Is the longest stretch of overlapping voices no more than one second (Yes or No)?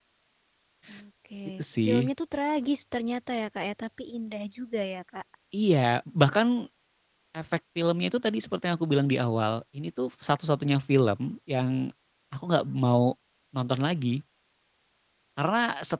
Yes